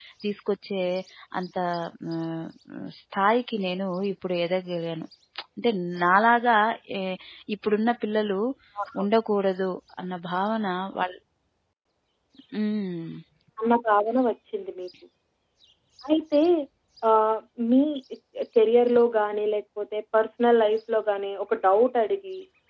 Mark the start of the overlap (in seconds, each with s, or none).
none